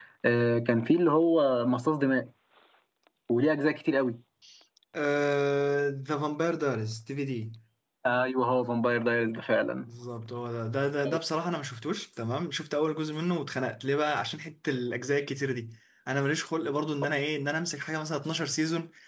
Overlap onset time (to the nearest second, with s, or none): none